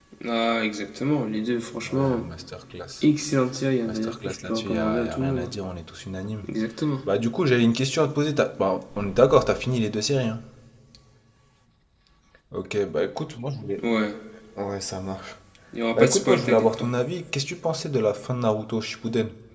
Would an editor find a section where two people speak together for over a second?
Yes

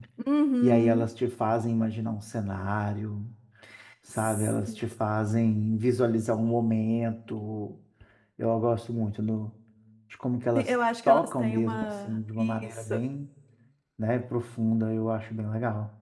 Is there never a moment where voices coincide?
No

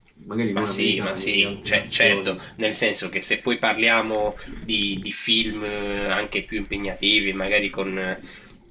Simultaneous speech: Yes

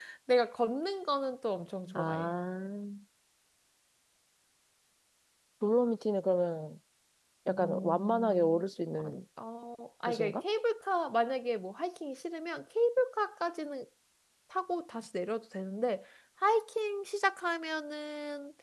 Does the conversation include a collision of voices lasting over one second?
Yes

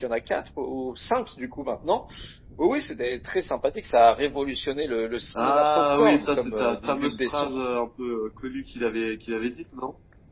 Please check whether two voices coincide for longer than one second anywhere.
Yes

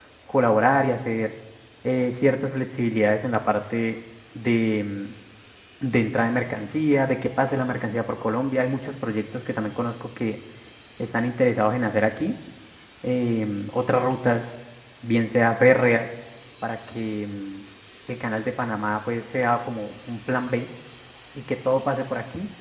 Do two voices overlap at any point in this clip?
No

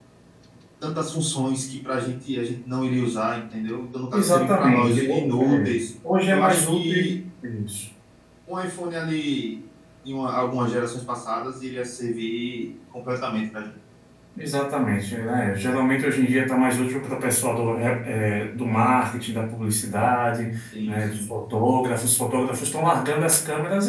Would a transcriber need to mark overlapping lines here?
Yes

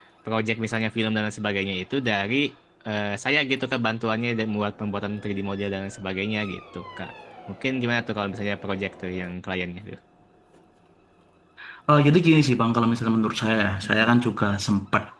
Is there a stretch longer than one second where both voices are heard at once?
No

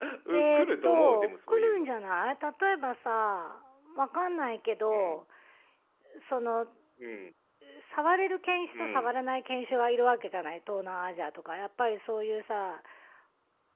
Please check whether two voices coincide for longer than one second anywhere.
Yes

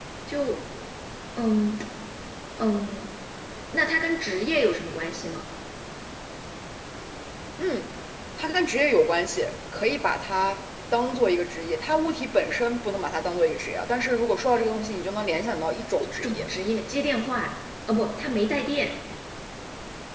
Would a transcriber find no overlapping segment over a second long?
Yes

